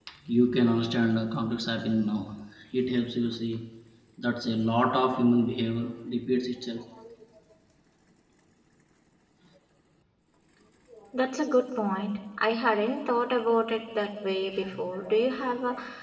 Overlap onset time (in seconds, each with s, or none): none